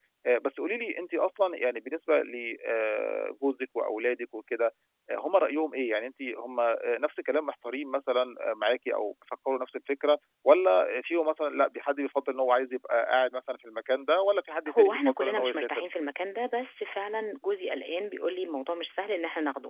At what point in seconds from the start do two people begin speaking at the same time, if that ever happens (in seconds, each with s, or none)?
14.7 s